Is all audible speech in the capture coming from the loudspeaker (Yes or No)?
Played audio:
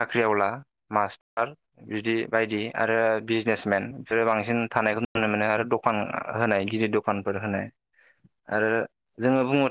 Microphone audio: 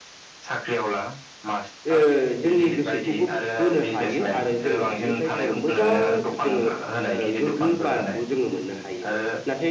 No